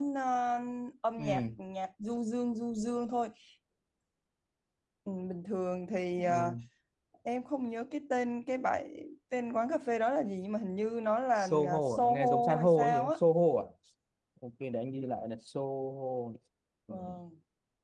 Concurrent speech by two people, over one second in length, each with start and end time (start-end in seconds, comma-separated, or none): 11.4-13.1